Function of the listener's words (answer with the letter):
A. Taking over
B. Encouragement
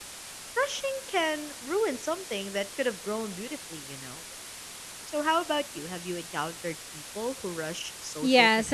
A